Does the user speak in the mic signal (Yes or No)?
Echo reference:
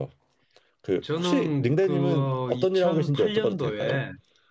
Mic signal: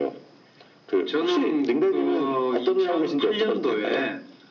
No